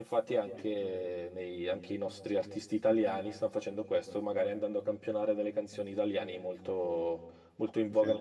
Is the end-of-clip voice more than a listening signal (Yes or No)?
No